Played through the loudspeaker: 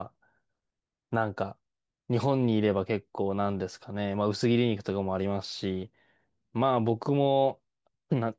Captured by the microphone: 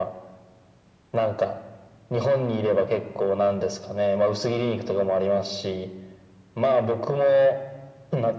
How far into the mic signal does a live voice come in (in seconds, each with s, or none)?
none